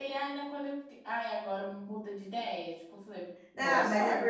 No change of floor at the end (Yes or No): No